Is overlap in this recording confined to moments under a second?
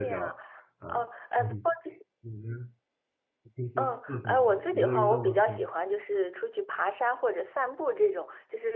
No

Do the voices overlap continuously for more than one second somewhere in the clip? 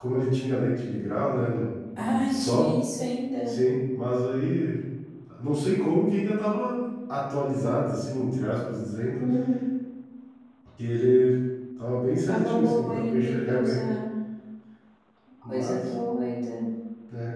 Yes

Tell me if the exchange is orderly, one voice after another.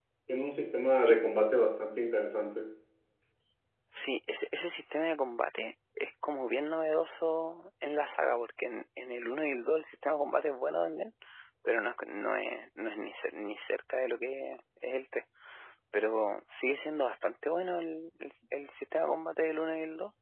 Yes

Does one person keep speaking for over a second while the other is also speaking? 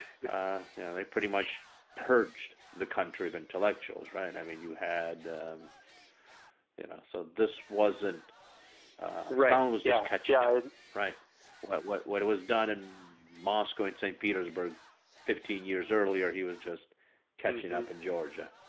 Yes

